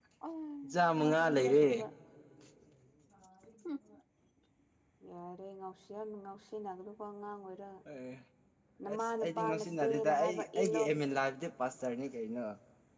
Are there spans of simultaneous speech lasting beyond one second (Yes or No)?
Yes